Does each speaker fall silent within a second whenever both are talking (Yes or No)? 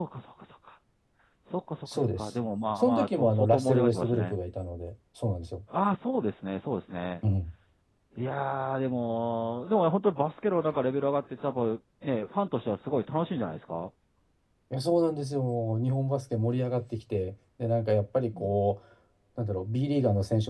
No